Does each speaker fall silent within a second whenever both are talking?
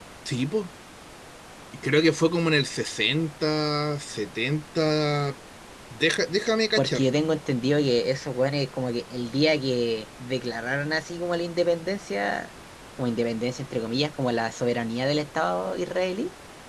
Yes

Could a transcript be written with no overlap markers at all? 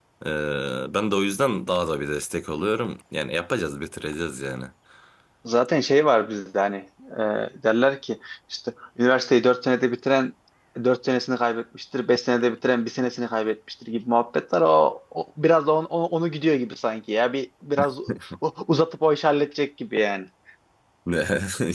Yes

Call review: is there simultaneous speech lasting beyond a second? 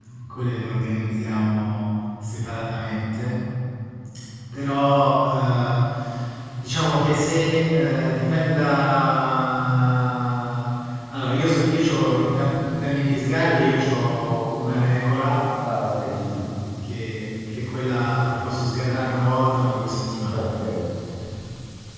No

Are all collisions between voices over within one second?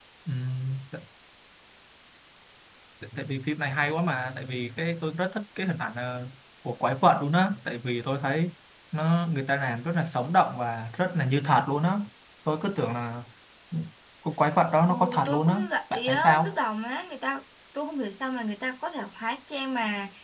No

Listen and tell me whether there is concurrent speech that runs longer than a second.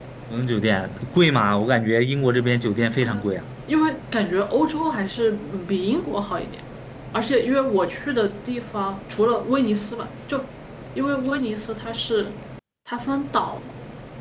No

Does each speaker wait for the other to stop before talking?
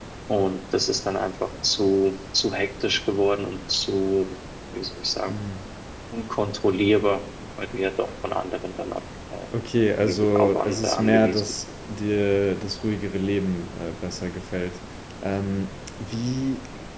No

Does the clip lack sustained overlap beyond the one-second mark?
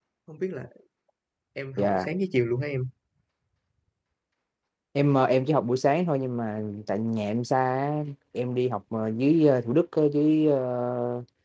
Yes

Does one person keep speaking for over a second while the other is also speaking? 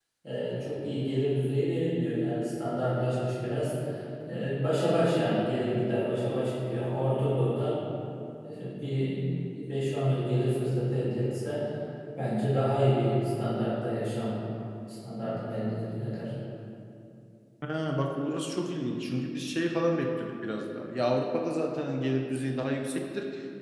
No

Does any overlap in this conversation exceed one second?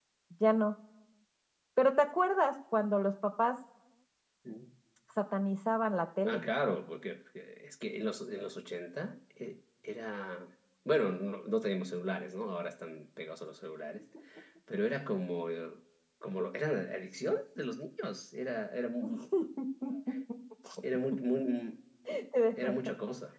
No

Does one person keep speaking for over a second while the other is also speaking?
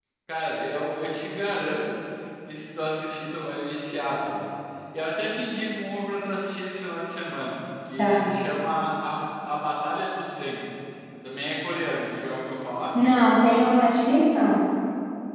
No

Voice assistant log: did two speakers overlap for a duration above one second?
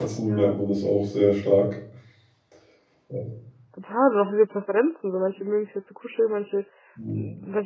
No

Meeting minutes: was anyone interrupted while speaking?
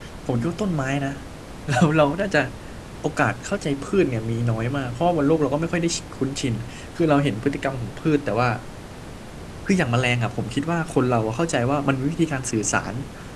No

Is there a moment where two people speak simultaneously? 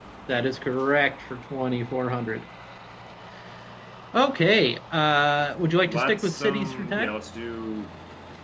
Yes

